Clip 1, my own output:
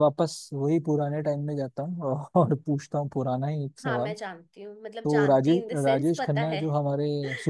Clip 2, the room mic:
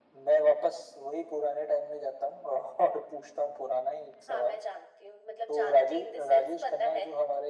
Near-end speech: none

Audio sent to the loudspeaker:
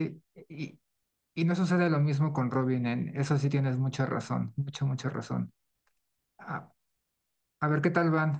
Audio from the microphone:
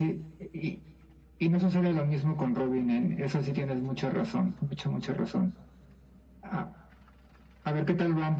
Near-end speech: none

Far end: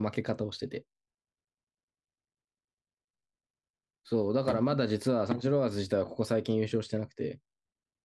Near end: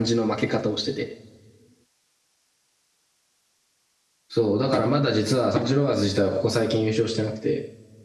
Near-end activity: none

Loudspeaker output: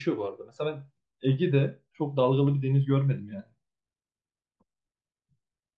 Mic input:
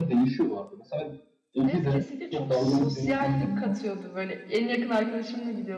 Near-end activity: present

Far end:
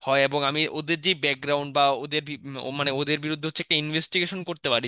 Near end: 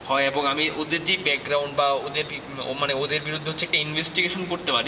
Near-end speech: none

